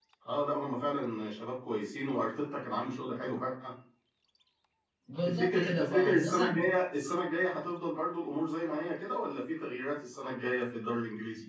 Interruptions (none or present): present